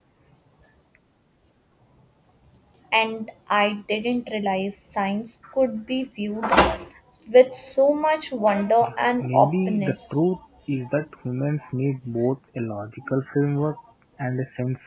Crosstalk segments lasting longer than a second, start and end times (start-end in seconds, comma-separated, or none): 8.8-10.2